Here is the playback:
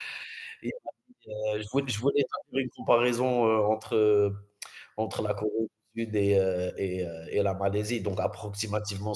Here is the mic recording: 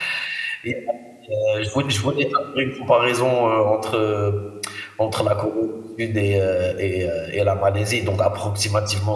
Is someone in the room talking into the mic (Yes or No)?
No